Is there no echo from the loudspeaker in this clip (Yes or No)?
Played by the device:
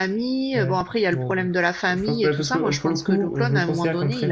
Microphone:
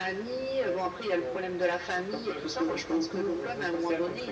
No